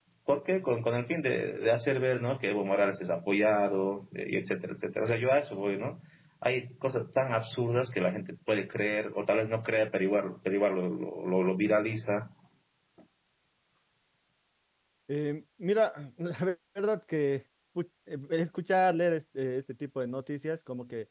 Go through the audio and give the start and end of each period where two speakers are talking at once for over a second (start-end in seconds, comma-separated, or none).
none